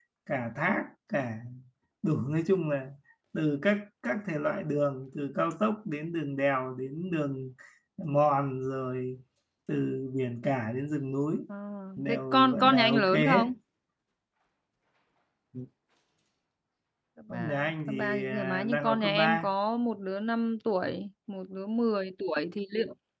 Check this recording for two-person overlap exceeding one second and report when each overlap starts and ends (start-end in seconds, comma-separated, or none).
12.1-13.4, 17.3-19.5